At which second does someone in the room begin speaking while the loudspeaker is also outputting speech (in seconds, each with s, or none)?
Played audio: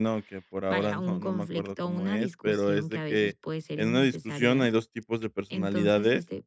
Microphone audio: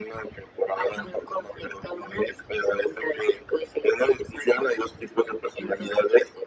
none